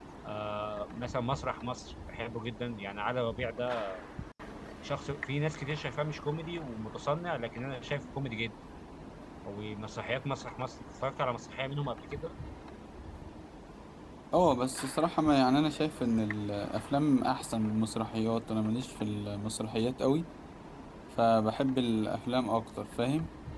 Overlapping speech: No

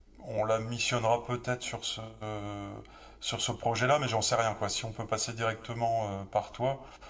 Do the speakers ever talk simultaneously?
No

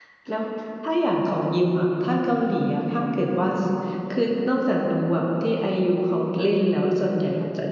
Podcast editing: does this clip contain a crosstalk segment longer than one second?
No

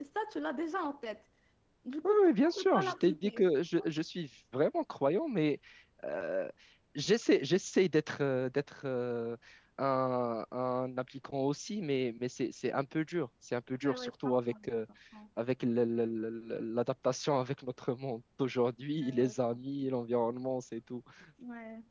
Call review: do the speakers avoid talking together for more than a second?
No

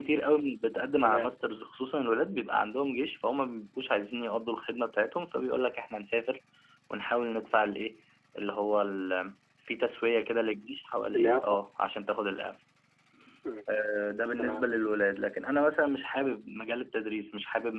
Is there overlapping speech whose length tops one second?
No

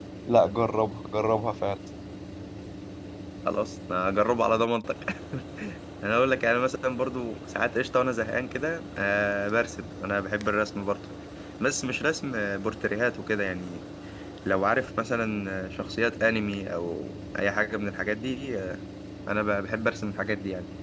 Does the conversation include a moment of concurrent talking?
No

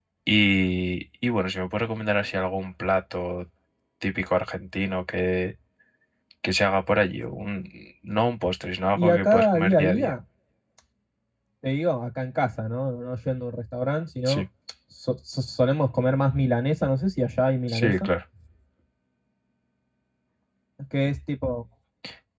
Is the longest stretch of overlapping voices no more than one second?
No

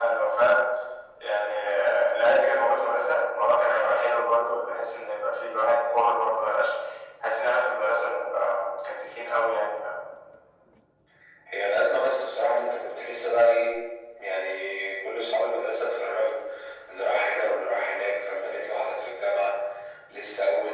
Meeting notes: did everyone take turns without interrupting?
Yes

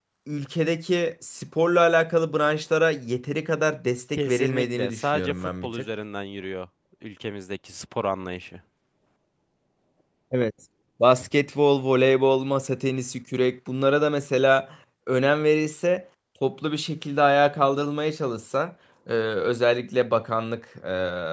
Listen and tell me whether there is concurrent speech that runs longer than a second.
Yes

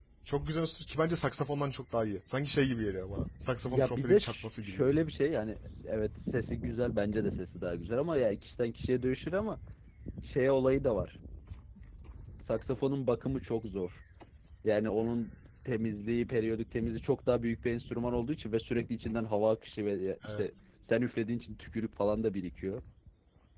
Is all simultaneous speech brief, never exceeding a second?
No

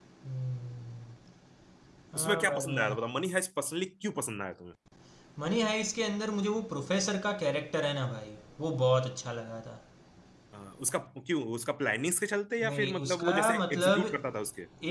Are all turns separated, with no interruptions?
No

